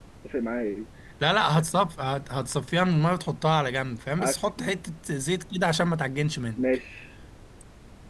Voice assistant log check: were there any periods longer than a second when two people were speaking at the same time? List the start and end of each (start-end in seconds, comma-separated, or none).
none